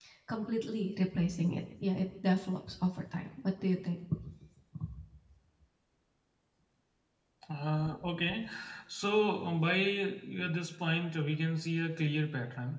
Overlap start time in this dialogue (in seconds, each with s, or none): none